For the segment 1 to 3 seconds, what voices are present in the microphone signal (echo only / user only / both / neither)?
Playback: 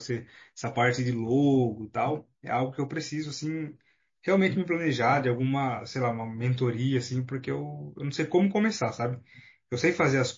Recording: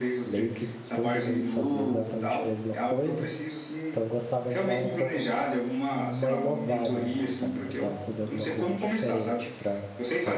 both